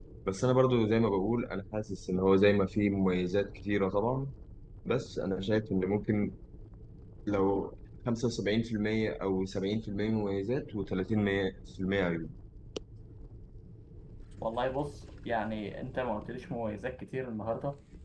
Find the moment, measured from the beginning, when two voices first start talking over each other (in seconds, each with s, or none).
none